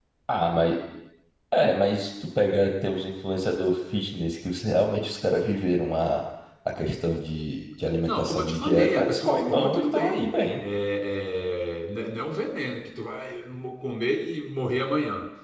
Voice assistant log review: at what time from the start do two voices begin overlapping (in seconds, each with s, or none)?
8.0 s